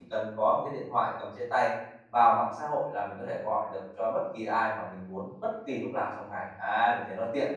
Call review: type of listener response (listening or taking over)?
taking over